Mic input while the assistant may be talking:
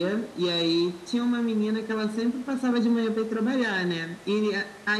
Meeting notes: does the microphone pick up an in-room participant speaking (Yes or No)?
No